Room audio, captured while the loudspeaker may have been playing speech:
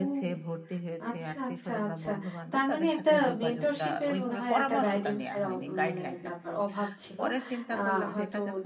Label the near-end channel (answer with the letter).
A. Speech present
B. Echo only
A